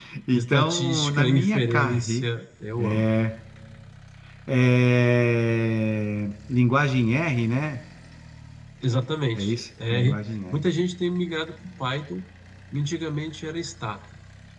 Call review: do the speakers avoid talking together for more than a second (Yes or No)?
No